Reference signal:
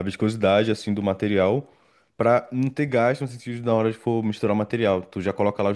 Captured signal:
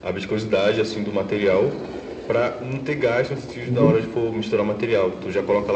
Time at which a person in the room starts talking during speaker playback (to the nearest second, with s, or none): 4 s